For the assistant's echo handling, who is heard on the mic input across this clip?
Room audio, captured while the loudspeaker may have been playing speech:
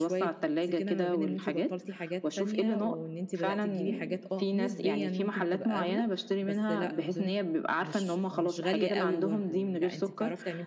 both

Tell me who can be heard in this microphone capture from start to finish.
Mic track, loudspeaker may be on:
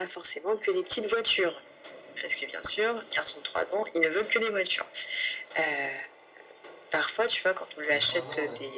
both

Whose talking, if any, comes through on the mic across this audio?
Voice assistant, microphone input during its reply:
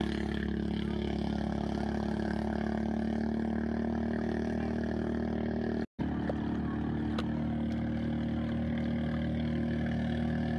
neither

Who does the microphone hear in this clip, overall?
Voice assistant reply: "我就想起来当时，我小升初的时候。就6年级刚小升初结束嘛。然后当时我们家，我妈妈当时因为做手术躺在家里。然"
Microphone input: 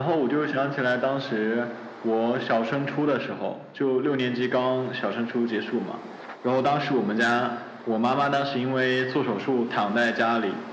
echo only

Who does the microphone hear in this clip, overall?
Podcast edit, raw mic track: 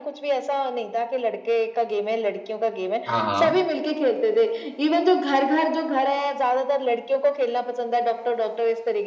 both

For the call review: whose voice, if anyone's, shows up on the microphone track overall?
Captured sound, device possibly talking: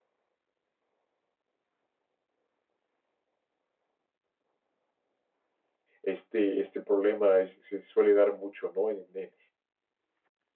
user only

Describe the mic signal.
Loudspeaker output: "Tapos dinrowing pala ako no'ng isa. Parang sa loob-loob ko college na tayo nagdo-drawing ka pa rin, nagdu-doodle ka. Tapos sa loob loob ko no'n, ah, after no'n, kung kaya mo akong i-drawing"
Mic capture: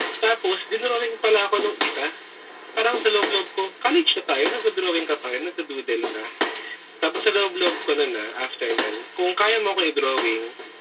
echo only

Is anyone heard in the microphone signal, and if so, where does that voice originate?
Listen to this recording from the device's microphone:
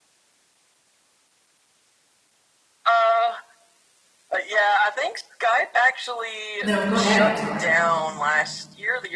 both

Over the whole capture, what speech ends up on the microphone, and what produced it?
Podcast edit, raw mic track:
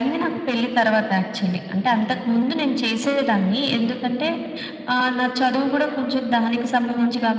both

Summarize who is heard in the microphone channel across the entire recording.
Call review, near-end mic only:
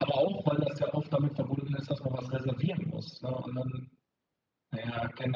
echo only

